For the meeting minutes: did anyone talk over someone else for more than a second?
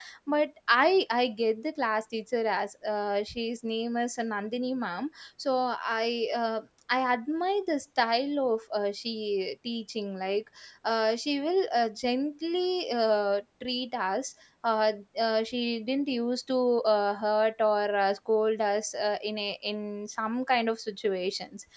No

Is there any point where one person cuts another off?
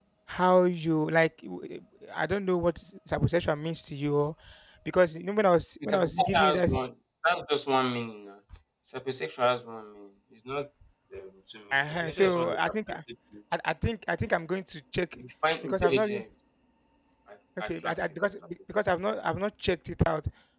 Yes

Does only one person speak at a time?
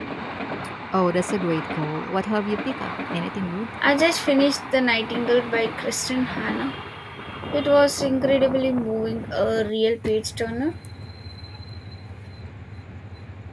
Yes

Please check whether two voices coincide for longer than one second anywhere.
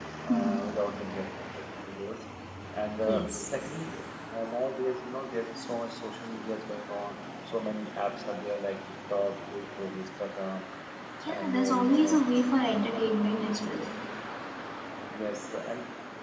Yes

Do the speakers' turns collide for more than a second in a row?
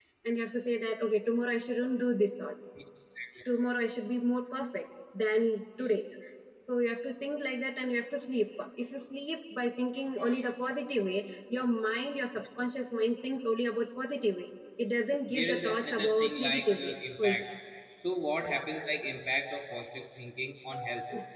Yes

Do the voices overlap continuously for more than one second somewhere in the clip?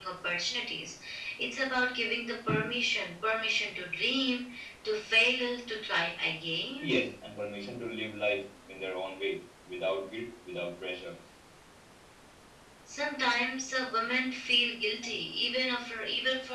No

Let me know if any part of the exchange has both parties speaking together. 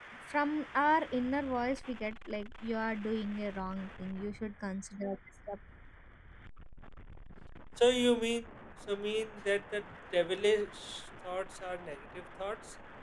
No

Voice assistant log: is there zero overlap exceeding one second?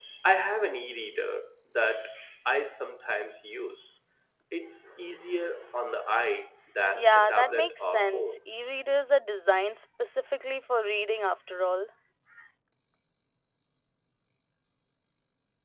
No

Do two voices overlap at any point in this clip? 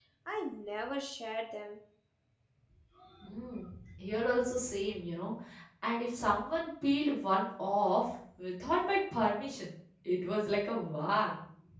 No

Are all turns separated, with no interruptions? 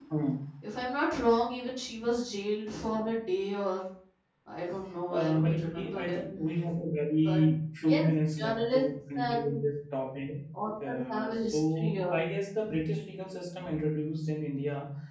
No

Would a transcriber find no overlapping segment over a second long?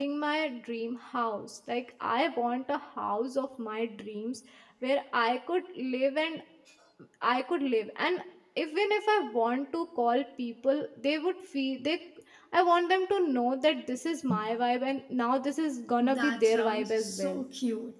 No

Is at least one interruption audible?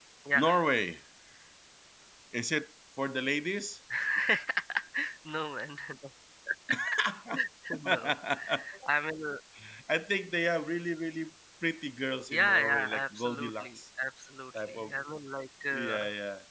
Yes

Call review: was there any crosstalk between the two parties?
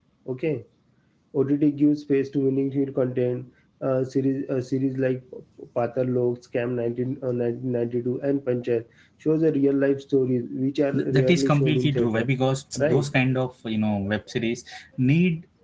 Yes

